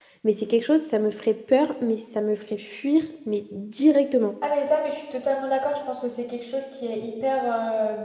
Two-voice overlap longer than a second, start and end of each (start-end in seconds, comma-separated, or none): none